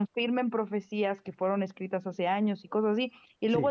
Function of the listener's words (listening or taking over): listening